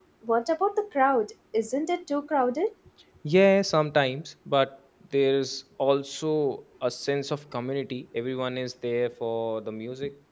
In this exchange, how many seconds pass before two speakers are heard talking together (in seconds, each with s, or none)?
none